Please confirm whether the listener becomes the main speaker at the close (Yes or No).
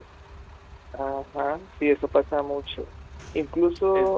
No